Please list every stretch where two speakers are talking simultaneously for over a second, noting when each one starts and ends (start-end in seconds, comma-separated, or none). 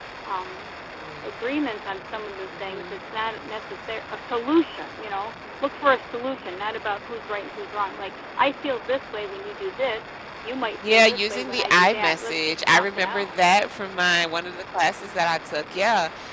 10.9-13.3